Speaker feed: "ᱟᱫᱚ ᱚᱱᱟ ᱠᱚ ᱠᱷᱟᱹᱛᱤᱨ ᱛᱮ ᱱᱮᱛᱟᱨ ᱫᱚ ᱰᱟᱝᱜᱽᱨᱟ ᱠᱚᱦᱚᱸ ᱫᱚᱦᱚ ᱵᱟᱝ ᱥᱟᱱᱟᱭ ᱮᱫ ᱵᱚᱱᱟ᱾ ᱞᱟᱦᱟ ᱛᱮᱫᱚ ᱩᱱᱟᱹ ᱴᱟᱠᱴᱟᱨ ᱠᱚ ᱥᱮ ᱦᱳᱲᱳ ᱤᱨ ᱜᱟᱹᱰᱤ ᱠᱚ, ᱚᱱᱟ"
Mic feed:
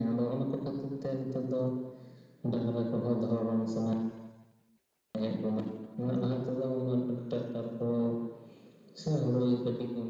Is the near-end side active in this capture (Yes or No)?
No